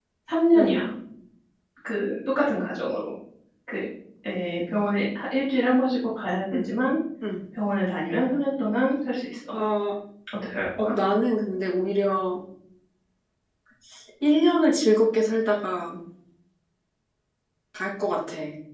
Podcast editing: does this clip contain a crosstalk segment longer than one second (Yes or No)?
No